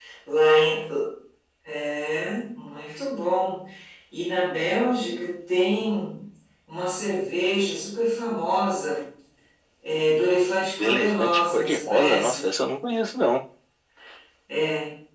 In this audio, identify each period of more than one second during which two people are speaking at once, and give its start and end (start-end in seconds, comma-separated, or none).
10.8-12.4